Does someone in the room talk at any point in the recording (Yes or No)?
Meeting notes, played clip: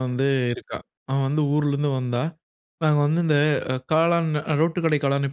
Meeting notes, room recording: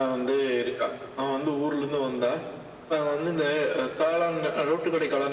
No